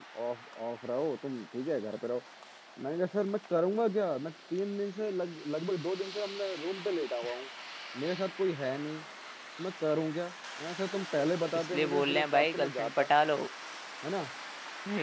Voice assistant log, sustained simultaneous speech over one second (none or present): present